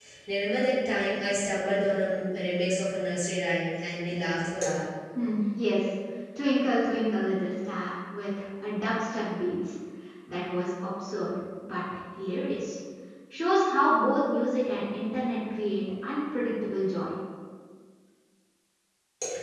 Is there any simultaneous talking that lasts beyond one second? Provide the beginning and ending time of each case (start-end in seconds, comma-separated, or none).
none